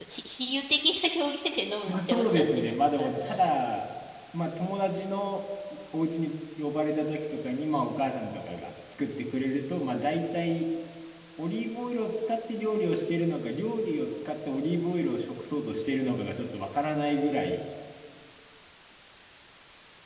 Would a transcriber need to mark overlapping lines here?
Yes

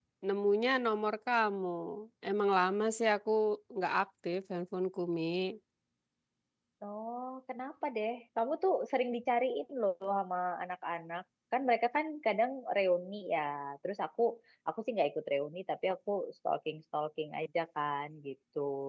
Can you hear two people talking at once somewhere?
No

